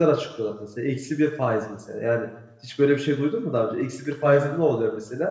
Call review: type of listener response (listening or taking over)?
listening